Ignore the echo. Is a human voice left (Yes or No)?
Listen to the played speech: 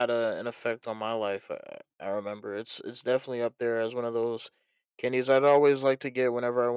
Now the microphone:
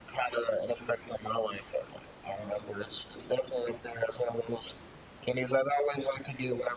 No